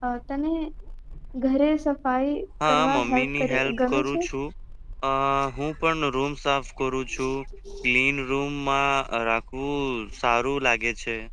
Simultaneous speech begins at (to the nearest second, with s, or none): 3 s